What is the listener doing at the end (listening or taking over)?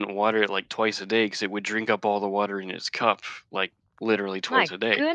taking over